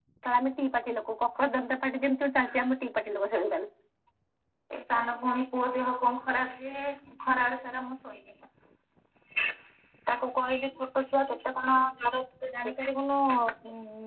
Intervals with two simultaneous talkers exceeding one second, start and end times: none

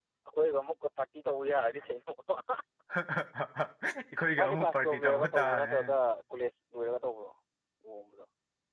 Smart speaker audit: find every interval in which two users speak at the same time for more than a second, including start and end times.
4.4-5.7

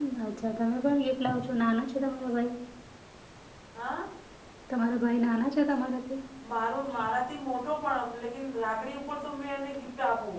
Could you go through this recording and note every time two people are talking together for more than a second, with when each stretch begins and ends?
none

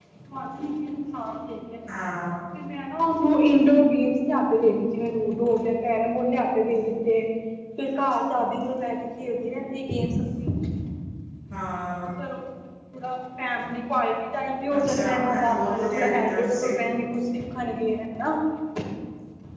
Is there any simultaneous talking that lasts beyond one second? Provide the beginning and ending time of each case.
14.8-16.7

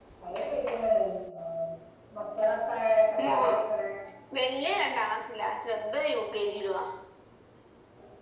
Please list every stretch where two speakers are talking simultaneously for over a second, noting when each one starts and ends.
none

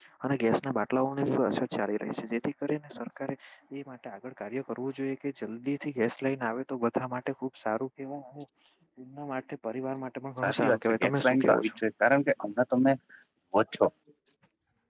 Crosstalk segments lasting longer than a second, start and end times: 10.4-11.8

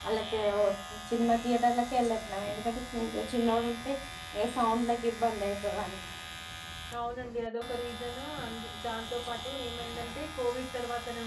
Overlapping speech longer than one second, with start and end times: none

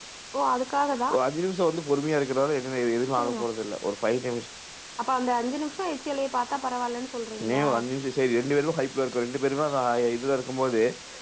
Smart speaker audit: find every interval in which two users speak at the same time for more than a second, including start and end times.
none

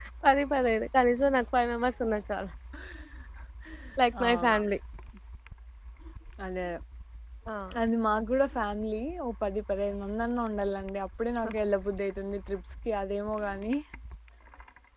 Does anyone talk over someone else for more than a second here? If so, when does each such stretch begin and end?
none

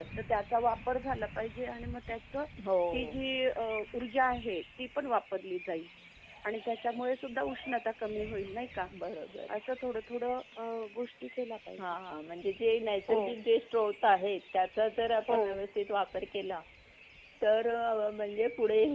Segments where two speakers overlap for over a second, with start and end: none

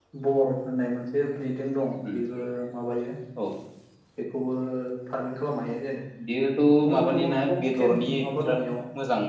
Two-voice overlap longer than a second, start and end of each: 6.9-8.6

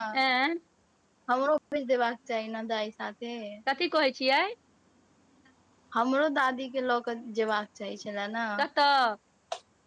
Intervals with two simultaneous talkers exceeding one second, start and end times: none

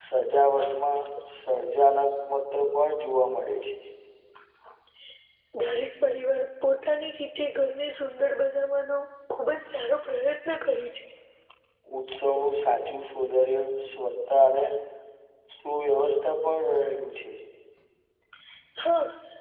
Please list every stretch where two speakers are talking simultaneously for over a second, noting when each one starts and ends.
none

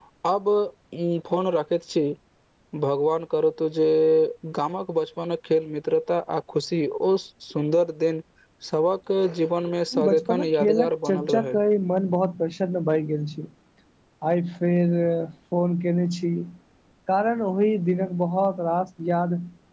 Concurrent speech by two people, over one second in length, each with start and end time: 9.9-11.6

